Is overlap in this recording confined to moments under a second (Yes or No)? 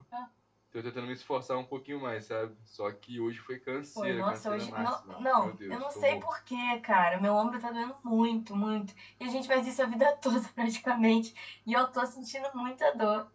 No